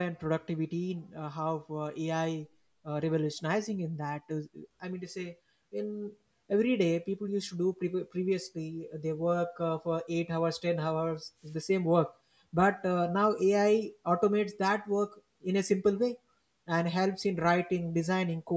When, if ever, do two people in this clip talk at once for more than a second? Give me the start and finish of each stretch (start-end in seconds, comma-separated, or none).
none